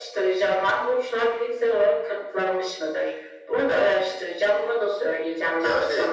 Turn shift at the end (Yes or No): Yes